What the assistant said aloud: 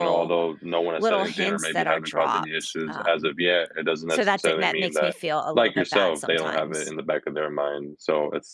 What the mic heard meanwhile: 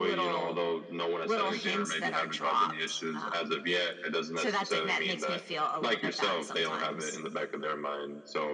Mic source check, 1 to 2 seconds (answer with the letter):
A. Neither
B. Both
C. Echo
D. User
C